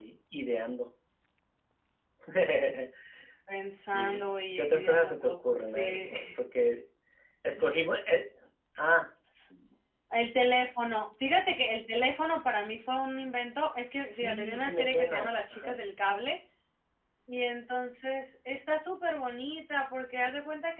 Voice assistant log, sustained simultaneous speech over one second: present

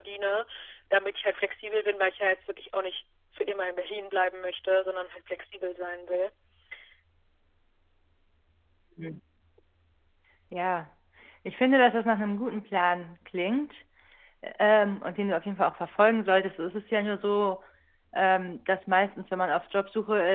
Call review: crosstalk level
none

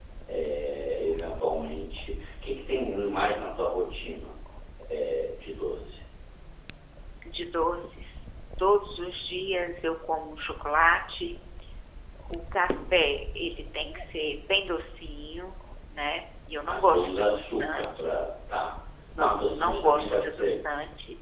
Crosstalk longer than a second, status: present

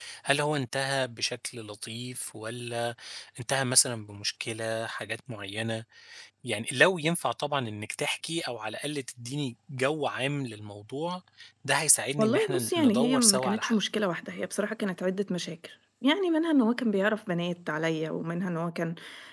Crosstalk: present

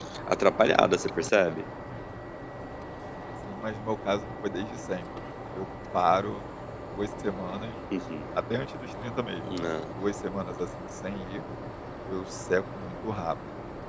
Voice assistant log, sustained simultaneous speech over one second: none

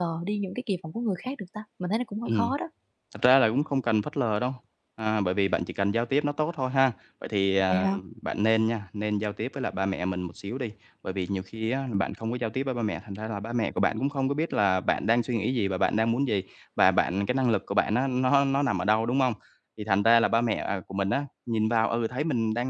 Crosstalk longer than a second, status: none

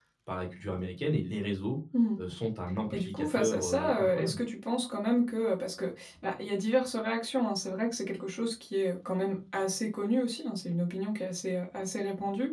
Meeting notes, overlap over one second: present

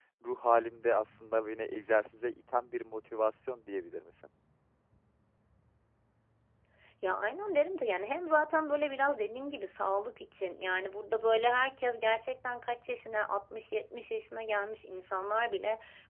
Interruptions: none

